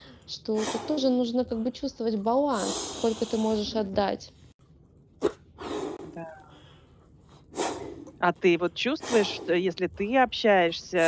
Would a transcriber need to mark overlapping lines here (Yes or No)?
No